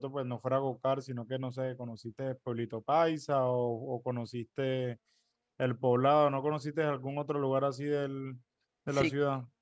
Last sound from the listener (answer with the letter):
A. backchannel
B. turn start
B